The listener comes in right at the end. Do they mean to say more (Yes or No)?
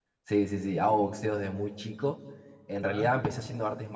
No